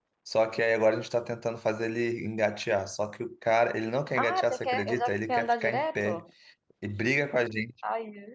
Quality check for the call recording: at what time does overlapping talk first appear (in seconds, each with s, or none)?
4.2 s